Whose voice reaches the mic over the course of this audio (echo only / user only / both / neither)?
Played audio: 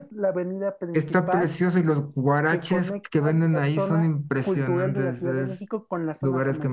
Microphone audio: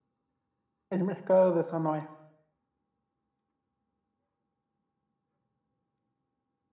user only